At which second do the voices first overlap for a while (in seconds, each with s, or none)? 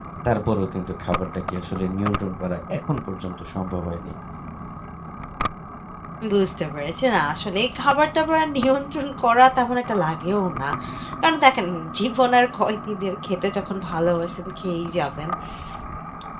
none